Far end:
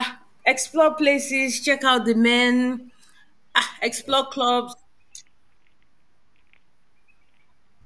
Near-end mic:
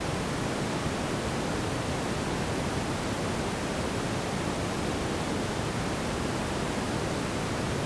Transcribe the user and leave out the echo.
none

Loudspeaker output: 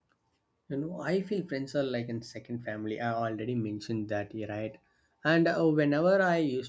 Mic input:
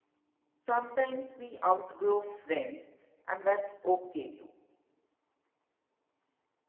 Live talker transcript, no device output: Sometimes we outgrow friends, and that's okay too.

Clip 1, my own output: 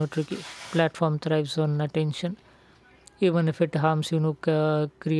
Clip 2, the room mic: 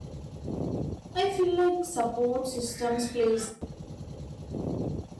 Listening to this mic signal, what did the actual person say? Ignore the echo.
I feel like support systems plays

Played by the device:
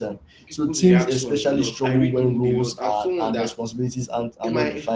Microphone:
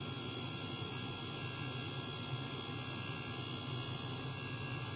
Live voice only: none

